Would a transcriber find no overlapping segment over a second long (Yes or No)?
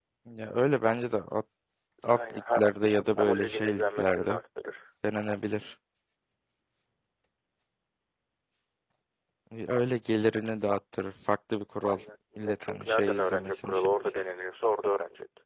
No